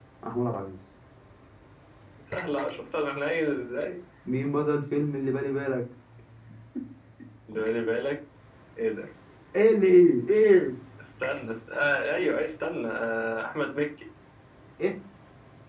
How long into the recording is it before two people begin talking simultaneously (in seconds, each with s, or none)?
none